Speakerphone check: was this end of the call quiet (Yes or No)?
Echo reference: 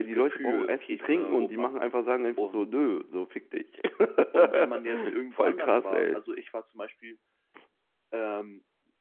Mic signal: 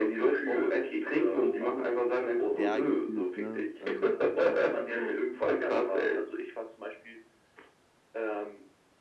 No